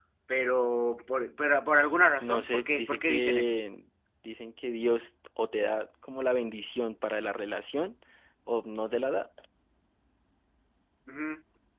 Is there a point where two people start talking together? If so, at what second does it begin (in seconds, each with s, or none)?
2.2 s